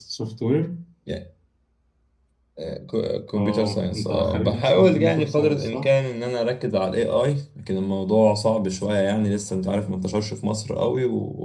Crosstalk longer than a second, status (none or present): present